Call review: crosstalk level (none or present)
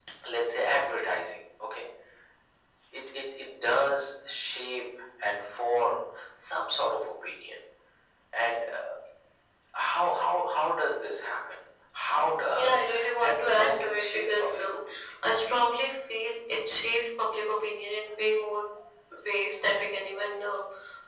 present